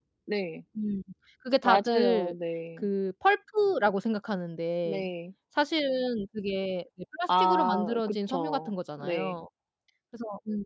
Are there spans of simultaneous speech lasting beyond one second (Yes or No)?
Yes